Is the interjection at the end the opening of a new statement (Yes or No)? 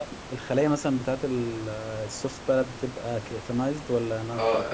Yes